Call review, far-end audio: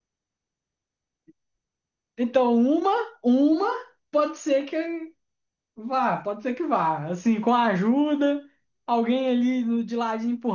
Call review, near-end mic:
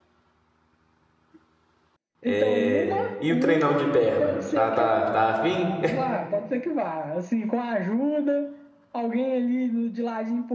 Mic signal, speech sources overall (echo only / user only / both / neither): both